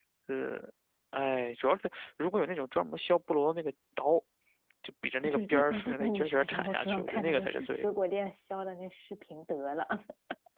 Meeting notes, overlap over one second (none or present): present